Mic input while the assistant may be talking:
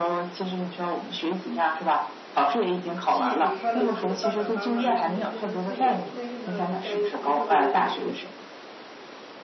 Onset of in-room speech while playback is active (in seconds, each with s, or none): 3.0 s